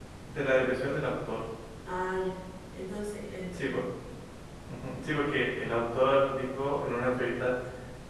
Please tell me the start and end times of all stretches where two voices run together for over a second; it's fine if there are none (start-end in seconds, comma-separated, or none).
none